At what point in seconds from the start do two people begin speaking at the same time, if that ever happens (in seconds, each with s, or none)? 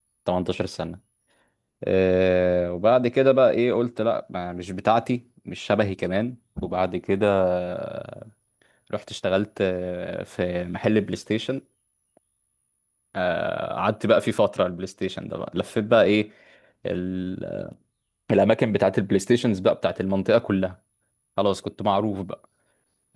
none